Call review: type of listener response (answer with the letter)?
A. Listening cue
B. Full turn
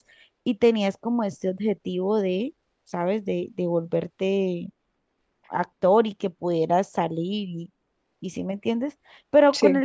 A